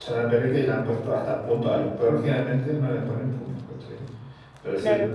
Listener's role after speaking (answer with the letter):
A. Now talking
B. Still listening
B